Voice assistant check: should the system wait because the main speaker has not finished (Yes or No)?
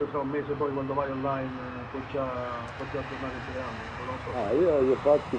No